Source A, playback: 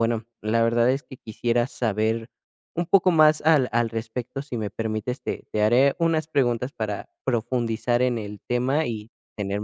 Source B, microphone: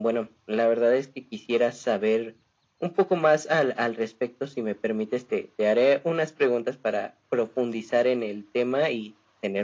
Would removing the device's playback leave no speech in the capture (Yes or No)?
Yes